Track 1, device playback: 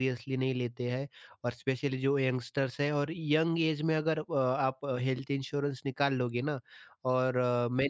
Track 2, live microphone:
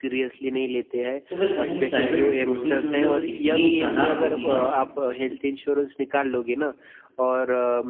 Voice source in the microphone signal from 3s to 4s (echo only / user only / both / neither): both